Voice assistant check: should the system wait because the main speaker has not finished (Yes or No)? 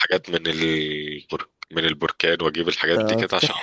No